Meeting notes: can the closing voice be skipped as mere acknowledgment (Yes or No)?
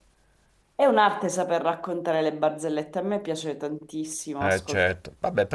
No